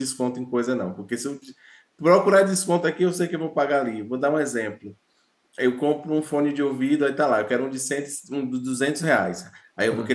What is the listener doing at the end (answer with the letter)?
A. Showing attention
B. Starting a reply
A